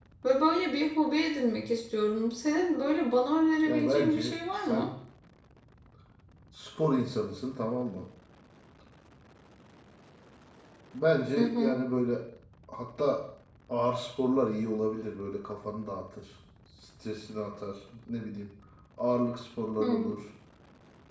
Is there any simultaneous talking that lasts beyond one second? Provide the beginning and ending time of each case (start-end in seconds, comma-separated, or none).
3.6-4.9